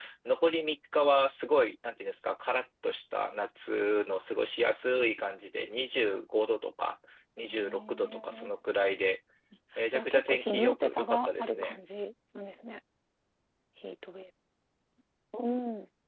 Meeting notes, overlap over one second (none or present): present